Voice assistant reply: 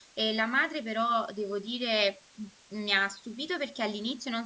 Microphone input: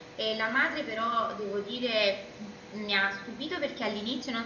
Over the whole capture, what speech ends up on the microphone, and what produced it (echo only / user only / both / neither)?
echo only